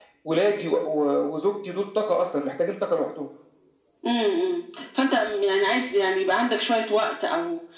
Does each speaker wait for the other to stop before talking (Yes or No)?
Yes